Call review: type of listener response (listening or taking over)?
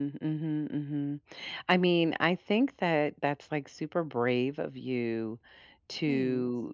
listening